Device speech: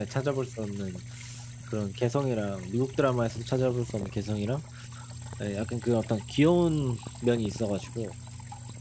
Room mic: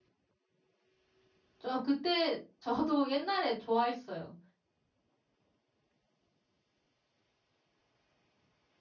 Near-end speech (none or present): present